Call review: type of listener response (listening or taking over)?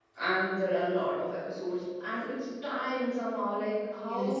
taking over